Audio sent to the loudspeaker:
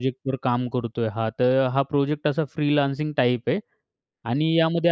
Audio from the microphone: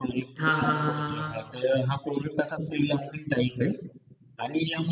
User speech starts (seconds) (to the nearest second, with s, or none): 0 s